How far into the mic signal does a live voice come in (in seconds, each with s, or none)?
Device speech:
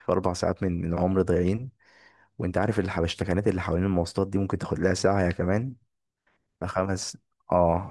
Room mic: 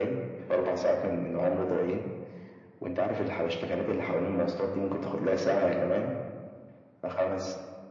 none